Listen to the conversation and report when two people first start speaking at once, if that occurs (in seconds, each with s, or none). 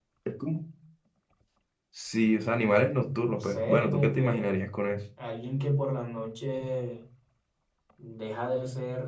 3.2 s